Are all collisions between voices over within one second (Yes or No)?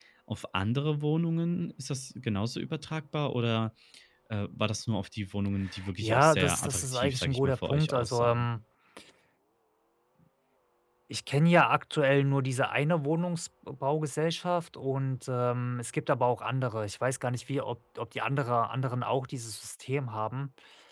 No